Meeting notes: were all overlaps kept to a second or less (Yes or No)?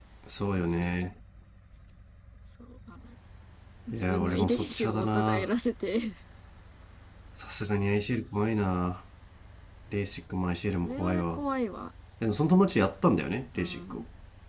No